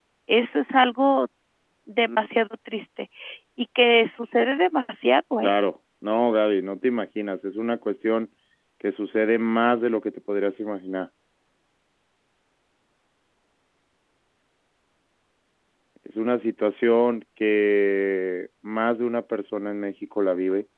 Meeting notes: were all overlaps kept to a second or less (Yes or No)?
Yes